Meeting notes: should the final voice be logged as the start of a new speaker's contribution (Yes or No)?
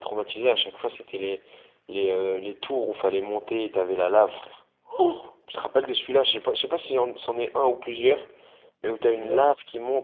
No